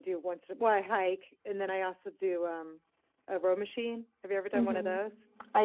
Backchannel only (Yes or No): No